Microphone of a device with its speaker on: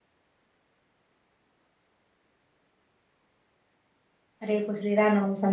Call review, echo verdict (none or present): none